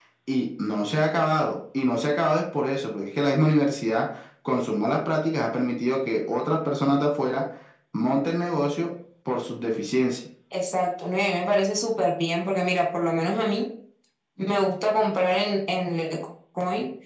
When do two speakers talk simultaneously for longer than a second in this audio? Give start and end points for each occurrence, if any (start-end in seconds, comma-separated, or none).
none